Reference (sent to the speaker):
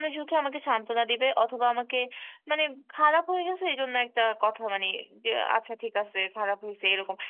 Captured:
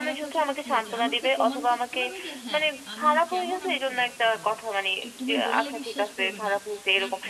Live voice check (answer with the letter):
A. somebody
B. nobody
A